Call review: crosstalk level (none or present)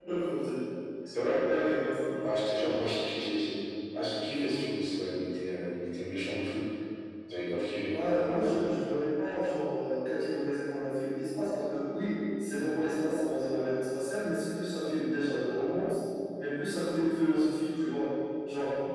none